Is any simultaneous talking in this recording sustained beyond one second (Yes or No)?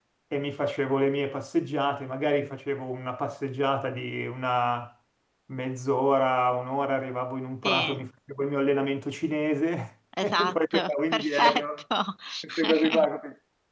Yes